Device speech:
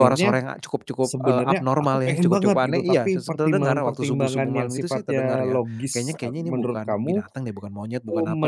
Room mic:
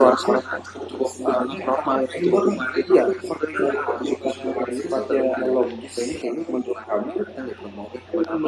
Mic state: echo only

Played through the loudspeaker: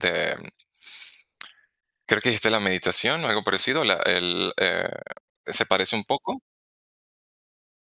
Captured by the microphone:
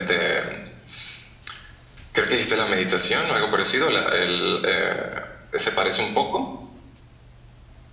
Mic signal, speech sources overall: echo only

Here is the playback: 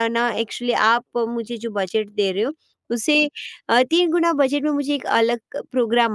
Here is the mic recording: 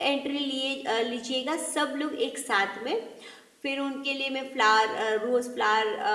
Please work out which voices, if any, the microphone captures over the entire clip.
user only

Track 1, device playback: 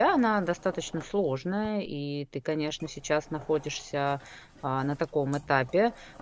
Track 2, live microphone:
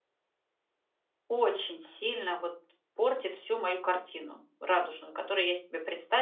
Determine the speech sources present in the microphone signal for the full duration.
user only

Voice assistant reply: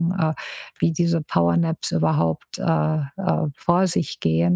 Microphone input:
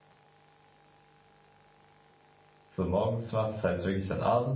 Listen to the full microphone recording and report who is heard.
user only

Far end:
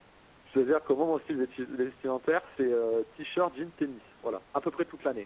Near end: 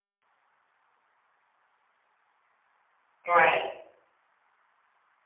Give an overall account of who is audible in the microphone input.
user only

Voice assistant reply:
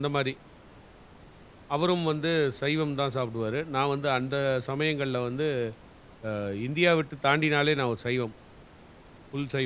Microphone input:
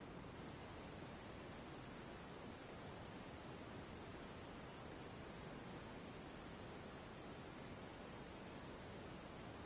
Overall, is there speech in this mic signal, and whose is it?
neither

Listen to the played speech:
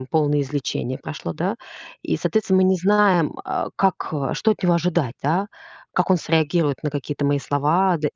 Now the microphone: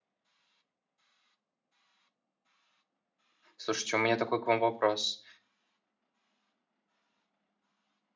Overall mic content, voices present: user only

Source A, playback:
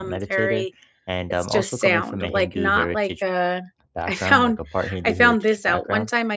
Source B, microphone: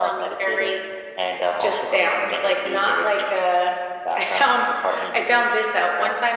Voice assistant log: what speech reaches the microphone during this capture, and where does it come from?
echo only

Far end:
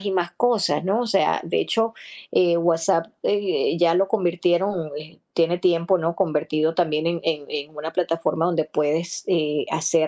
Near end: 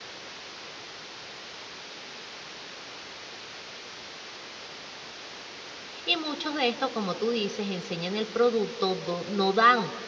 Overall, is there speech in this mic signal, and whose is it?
user only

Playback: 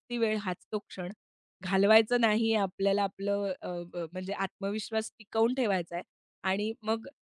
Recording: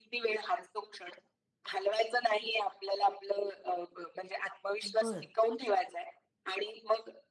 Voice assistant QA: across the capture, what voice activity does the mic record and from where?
both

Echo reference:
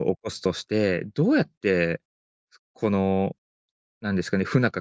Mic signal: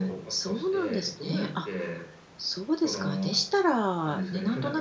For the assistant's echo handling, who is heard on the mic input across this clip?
both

